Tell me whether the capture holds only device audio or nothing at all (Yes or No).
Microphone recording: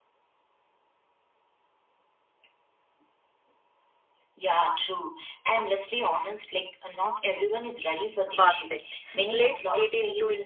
No